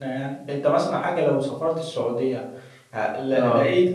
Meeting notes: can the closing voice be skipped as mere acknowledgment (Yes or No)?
Yes